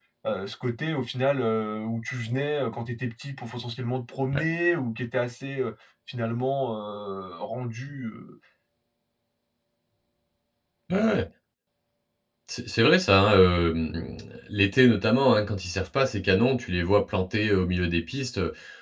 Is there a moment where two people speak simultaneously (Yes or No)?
No